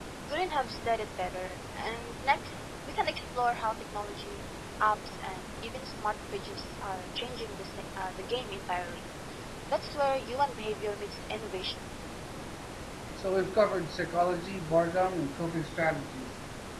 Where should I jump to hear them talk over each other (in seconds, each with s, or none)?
none